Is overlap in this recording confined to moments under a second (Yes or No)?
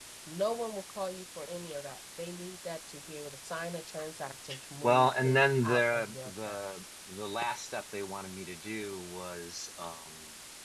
No